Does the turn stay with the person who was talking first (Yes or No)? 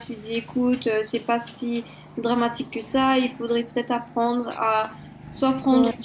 Yes